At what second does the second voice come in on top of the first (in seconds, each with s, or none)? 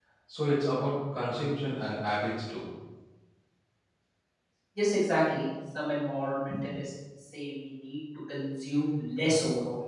none